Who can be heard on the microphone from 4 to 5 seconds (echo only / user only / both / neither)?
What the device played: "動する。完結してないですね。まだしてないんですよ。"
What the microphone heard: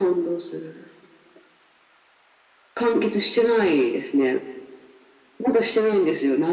echo only